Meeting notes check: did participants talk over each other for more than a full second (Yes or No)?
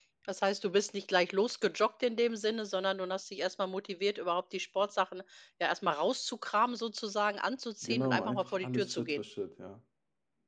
Yes